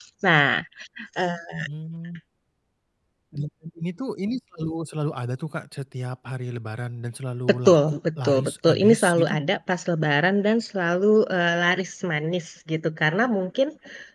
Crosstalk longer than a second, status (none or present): present